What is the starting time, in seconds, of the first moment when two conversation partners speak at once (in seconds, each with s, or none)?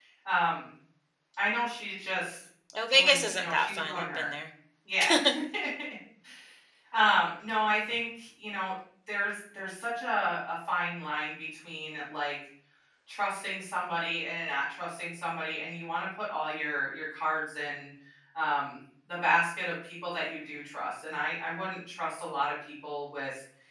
2.9 s